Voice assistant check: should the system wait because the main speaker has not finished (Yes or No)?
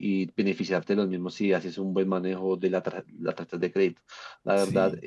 Yes